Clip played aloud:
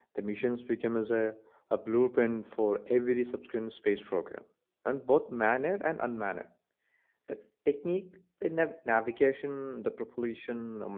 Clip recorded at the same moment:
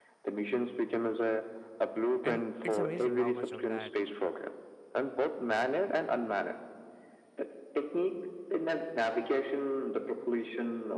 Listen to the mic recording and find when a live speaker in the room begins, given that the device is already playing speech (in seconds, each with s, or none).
2.2 s